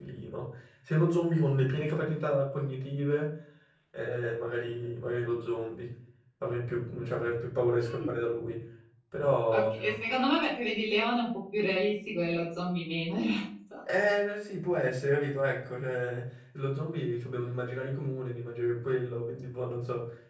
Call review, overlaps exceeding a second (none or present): none